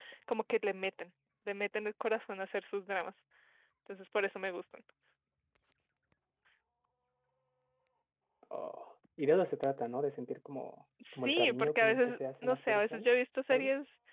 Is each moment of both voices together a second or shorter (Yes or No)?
No